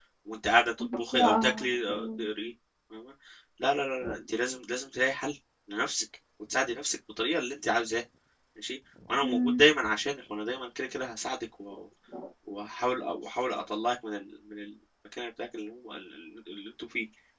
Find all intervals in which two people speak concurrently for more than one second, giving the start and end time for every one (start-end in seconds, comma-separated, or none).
1.0-2.3